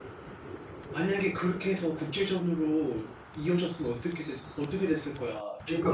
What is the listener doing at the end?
taking over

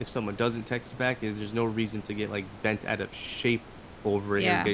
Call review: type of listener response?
listening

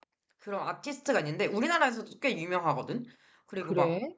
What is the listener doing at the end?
listening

